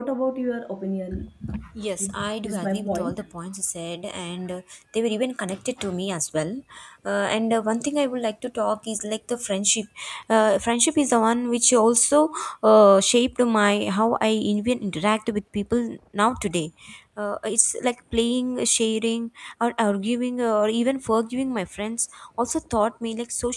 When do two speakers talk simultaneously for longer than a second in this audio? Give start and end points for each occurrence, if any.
2.0-3.2

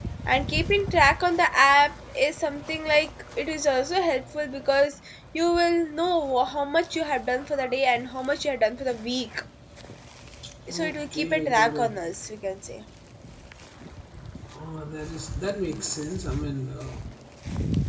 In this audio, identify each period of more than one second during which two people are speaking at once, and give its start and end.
10.7-11.9

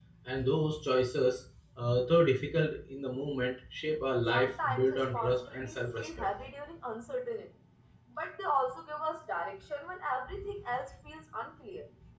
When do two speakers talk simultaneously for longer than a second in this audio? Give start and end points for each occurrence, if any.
4.3-6.3

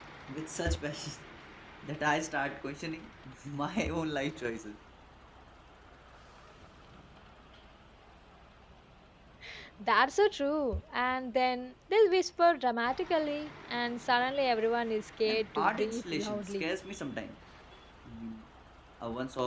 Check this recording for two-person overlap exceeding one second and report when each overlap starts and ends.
15.2-16.7

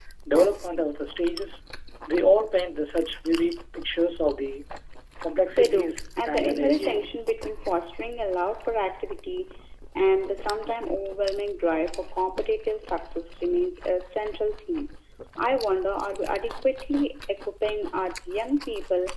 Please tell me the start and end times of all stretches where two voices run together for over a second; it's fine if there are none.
5.5-7.0

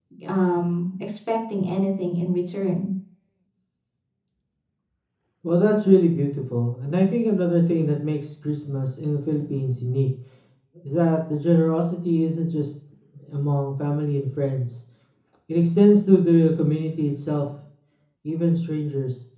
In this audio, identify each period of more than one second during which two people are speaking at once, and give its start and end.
none

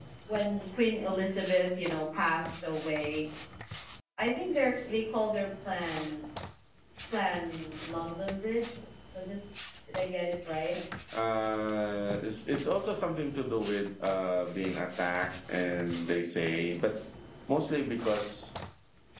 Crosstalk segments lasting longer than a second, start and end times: none

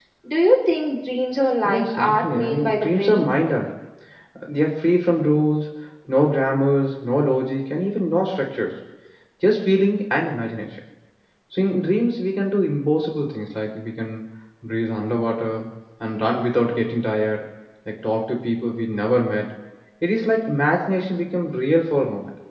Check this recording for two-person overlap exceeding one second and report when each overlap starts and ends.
1.6-3.2

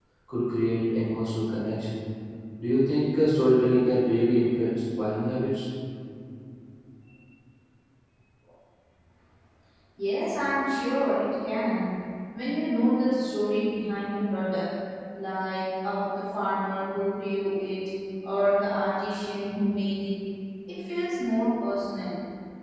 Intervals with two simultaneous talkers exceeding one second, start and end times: none

